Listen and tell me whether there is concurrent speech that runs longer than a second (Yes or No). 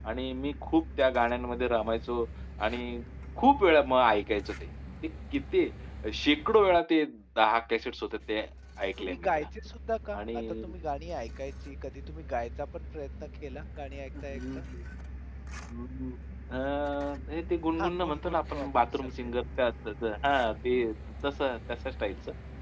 Yes